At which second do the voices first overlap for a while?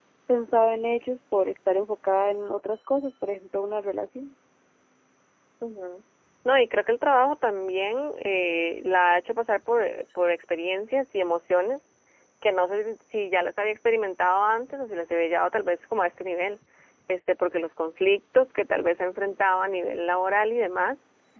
none

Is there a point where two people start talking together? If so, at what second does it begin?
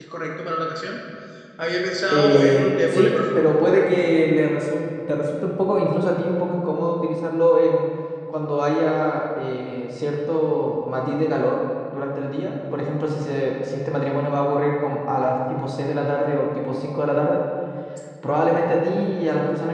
2 s

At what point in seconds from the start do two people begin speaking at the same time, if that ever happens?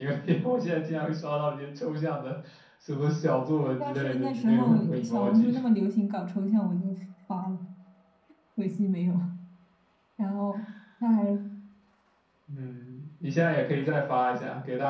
4 s

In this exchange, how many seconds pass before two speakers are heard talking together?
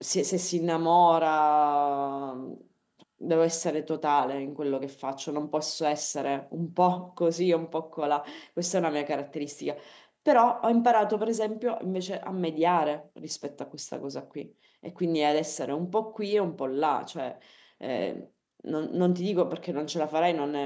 none

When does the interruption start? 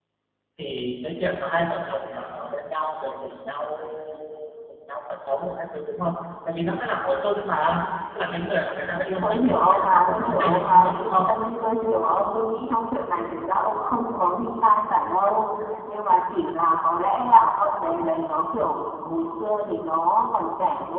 9 s

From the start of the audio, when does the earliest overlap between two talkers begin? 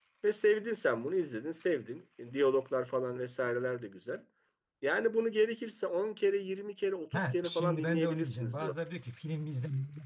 7 s

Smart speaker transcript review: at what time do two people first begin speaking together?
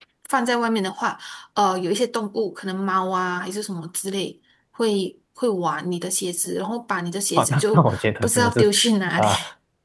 7 s

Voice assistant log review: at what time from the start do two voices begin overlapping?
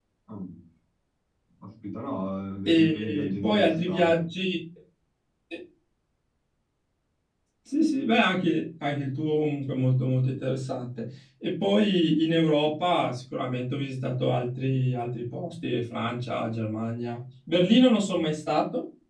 3 s

